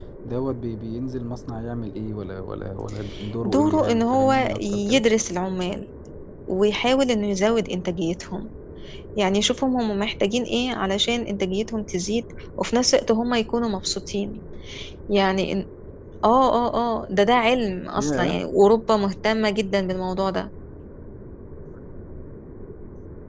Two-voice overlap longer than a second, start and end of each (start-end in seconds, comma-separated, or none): 3.4-5.0